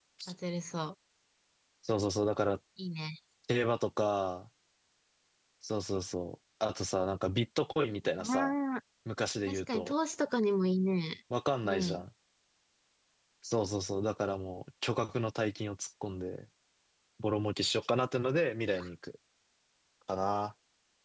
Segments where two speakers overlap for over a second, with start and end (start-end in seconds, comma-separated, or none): none